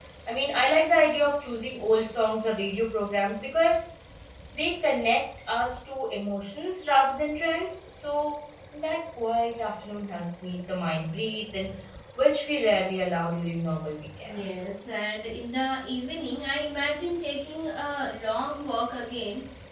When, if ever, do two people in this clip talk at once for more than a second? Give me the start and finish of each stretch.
none

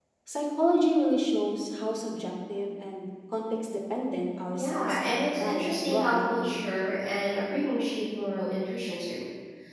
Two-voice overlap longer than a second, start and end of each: 4.5-6.6

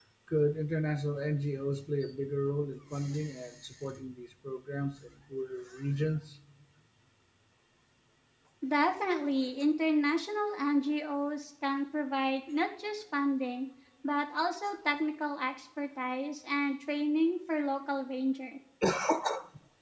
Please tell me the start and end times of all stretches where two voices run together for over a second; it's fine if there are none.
none

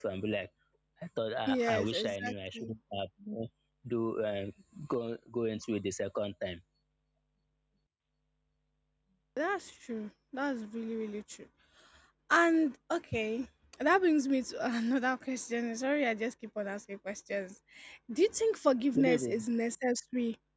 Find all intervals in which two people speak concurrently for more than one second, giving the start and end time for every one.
1.5-2.7

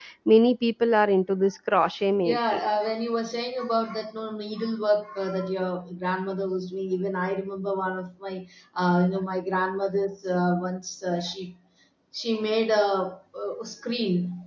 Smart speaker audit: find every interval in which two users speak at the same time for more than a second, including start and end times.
none

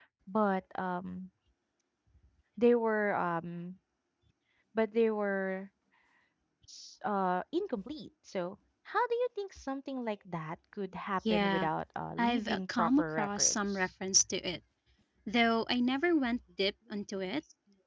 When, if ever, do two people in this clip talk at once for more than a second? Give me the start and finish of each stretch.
12.2-13.8

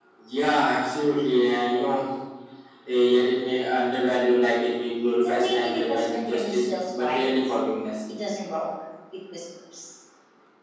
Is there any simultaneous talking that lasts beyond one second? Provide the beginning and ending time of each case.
5.2-7.3

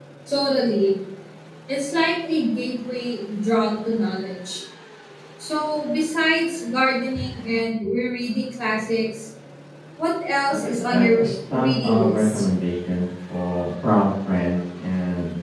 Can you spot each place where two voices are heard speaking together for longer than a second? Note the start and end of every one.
10.6-12.4

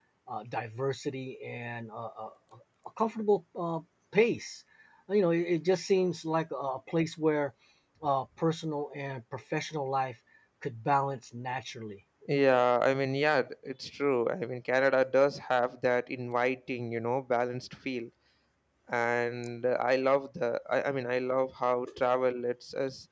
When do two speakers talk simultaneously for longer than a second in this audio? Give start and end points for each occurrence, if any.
none

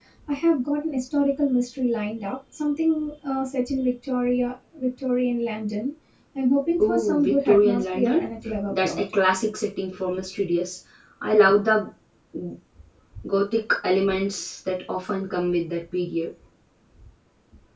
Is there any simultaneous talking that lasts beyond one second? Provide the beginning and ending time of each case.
6.8-8.2

